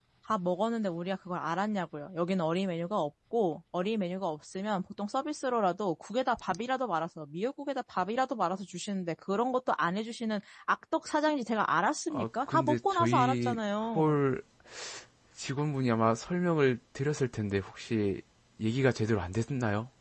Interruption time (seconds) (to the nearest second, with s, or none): 12 s